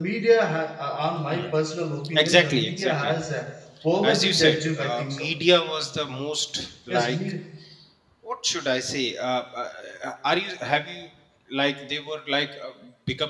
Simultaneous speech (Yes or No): Yes